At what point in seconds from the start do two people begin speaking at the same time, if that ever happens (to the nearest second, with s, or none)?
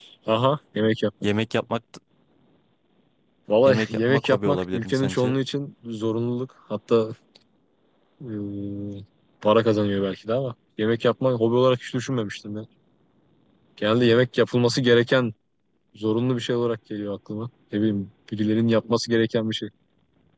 4 s